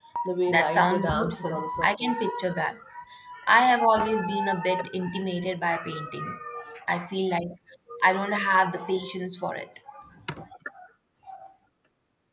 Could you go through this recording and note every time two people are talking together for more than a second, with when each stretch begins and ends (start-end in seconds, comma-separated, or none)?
0.5-2.1